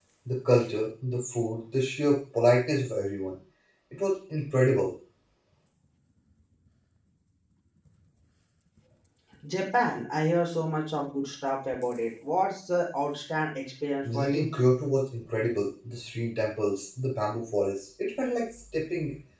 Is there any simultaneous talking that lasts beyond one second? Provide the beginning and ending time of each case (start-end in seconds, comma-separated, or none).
none